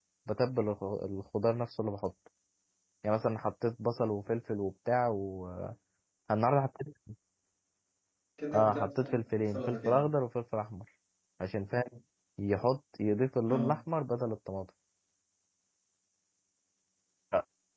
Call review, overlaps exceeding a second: present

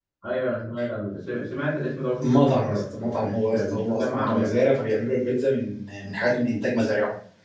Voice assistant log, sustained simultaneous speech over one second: present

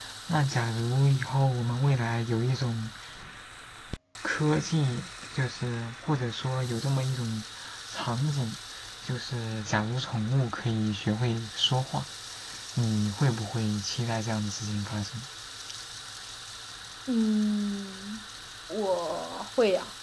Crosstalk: none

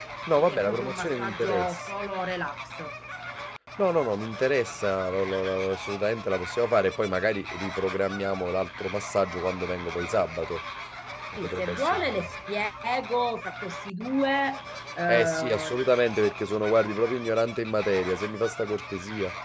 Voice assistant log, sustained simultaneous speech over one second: present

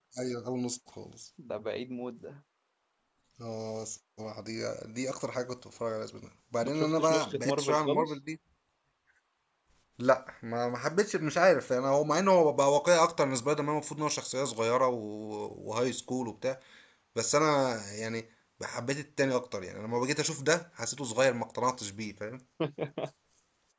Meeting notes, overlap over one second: present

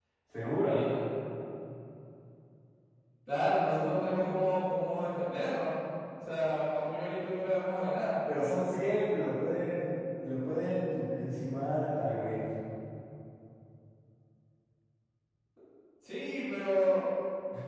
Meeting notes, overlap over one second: none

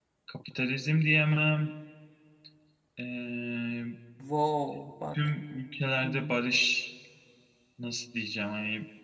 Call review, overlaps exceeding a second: none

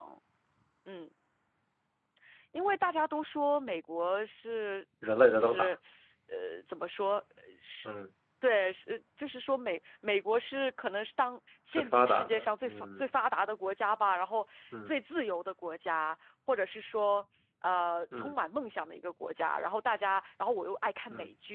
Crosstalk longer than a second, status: present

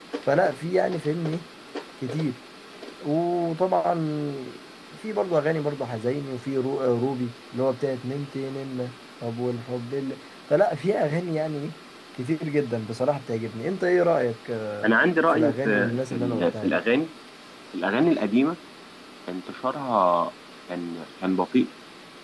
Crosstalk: present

